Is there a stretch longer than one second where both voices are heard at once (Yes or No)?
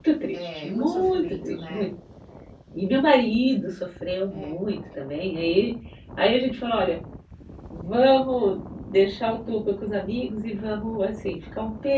Yes